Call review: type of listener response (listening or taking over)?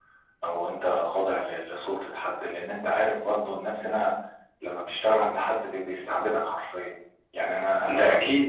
listening